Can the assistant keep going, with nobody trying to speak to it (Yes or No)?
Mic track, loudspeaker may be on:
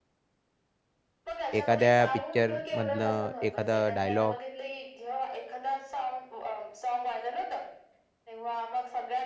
No